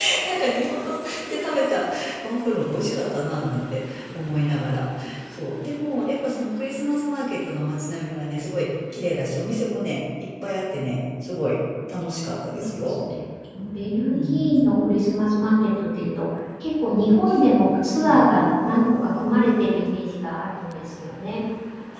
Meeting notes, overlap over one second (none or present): none